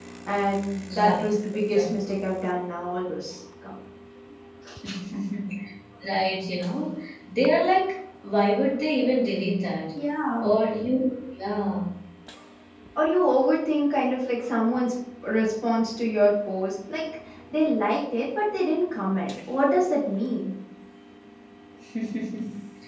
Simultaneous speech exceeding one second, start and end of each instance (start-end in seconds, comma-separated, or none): none